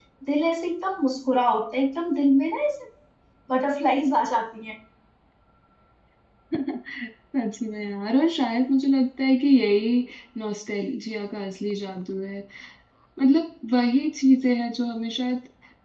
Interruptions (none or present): none